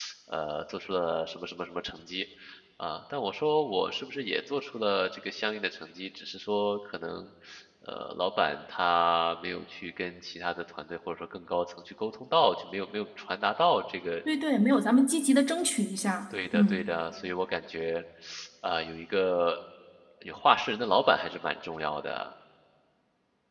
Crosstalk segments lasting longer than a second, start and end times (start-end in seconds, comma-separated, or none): none